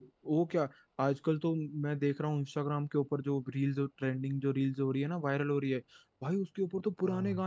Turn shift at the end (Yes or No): No